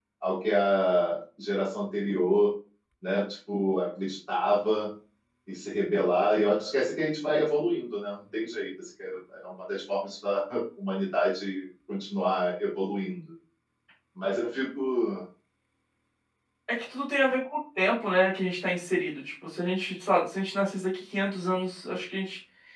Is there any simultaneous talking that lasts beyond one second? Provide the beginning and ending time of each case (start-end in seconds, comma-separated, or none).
none